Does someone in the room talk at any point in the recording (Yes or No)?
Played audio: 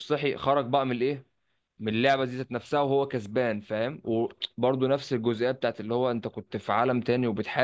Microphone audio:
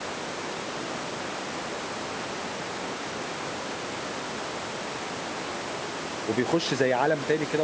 Yes